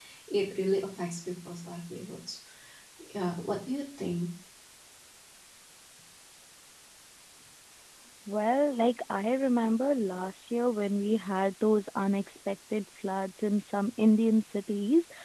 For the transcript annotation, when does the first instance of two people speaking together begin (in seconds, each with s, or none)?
none